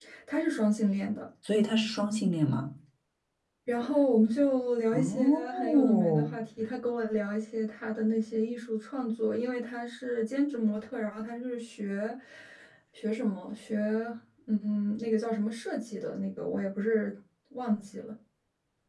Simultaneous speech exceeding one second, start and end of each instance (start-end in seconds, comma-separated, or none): 4.9-6.3